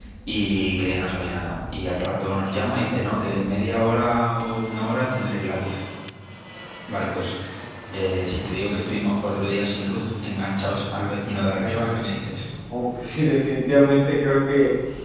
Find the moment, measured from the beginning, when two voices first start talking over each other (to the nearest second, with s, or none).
none